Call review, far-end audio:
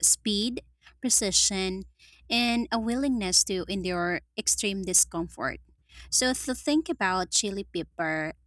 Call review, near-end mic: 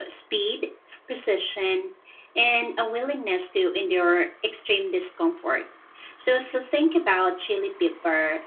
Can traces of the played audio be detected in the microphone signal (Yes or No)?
Yes